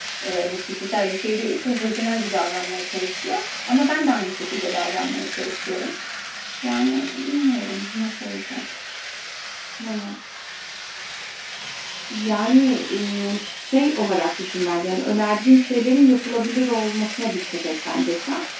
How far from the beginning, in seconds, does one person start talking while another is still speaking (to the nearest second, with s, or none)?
none